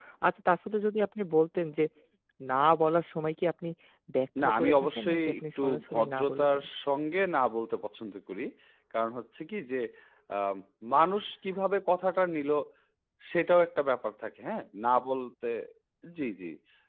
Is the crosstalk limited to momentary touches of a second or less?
No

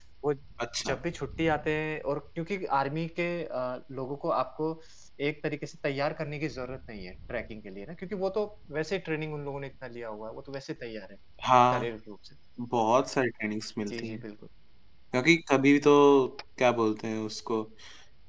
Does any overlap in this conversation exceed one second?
No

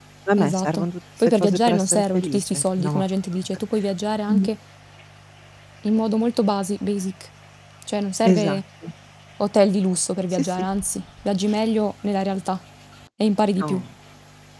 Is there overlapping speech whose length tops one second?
Yes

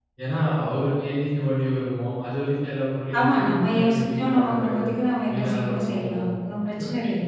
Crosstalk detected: Yes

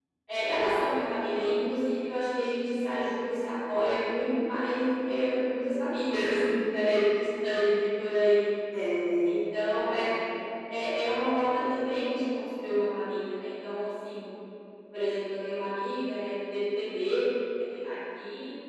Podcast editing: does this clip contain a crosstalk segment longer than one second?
No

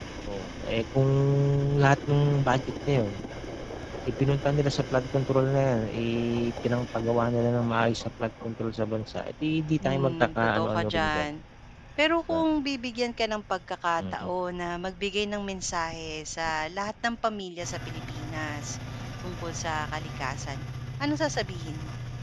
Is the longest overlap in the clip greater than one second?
Yes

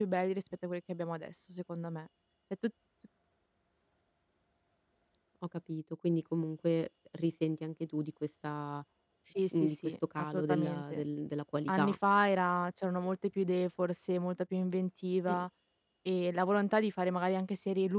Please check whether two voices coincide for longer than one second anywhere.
Yes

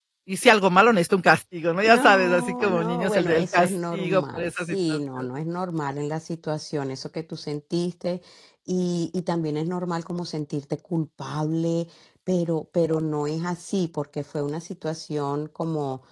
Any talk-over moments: Yes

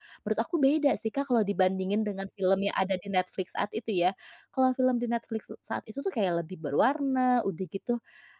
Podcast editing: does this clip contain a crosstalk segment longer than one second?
No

